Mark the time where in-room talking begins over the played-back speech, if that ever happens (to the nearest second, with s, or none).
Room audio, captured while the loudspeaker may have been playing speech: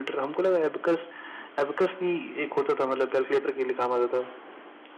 none